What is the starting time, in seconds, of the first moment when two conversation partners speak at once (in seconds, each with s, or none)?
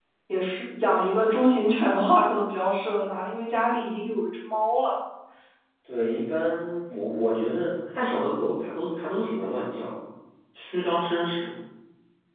none